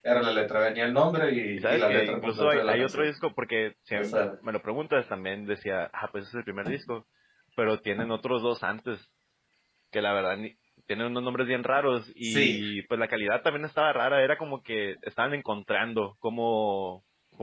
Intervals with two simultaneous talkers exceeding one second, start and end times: 1.6-3.0

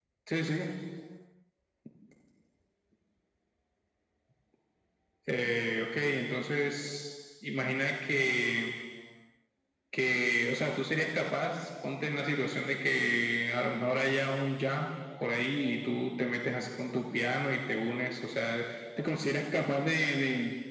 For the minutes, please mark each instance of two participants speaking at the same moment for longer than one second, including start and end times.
none

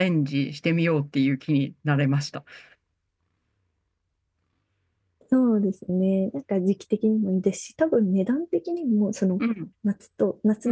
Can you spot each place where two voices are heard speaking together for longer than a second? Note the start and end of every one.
none

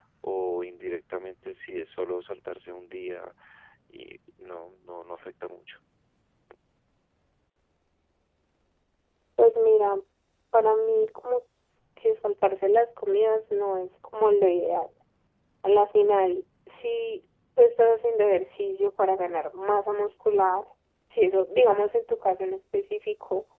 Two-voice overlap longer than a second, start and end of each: none

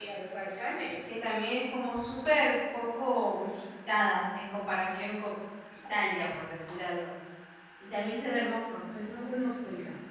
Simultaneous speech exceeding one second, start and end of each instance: none

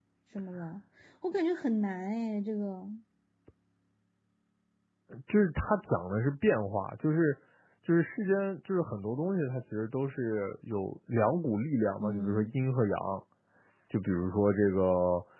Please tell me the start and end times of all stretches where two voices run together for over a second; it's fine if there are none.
none

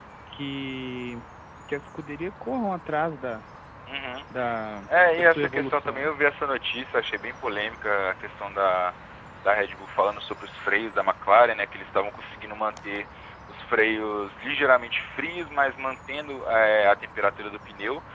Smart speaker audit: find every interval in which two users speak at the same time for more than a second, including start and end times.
4.9-6.1

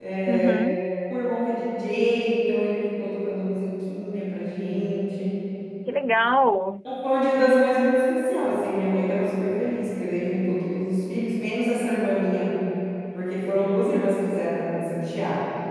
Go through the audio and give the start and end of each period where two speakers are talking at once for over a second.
none

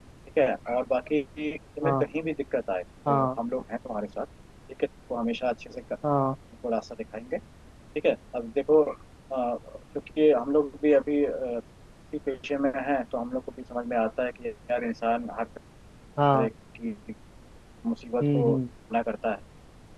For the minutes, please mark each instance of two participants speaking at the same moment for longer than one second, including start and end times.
none

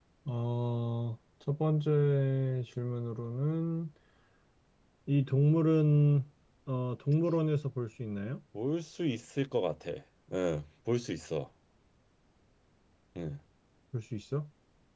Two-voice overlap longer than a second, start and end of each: none

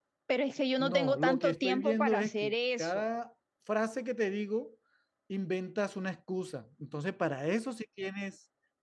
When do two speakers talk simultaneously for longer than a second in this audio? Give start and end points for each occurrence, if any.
0.8-3.0

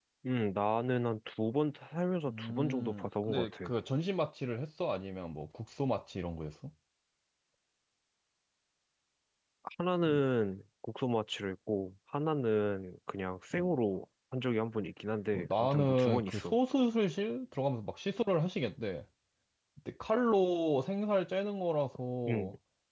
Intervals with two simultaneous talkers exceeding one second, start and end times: 2.3-3.7, 15.3-16.6

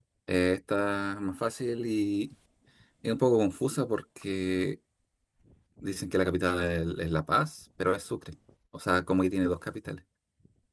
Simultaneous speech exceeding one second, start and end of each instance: none

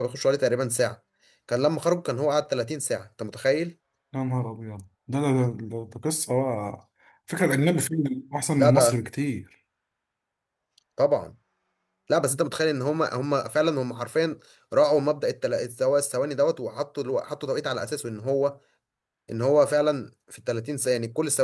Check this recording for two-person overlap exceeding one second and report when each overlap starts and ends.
none

